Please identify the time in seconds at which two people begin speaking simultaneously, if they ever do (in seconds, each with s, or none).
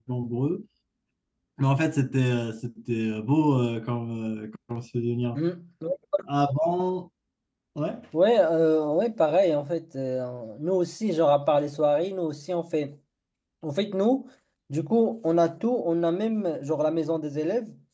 none